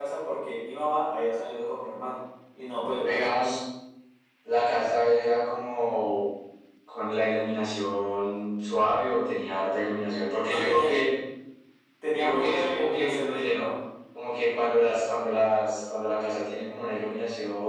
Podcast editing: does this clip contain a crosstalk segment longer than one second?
Yes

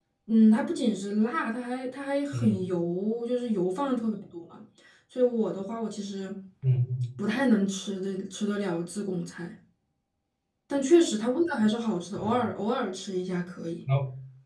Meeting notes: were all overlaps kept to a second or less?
Yes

